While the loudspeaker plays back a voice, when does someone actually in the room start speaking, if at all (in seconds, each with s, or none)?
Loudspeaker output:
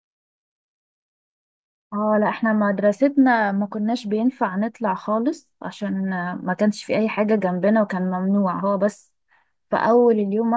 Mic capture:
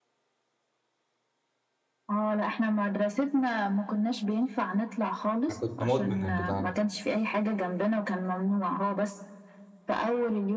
5.5 s